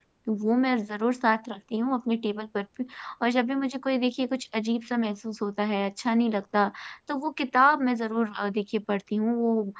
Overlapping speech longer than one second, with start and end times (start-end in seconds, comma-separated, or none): none